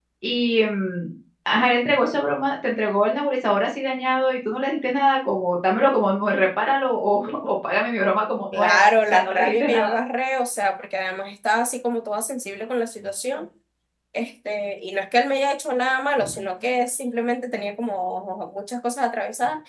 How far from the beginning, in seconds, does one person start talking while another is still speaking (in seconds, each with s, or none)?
8.5 s